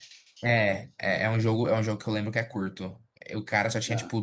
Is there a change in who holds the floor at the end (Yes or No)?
No